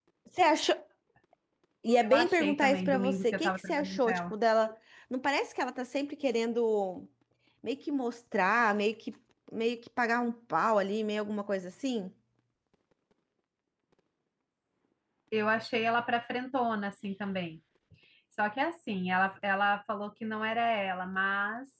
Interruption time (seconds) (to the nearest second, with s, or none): 2 s